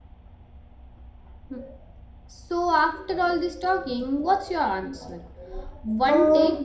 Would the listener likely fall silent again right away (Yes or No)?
Yes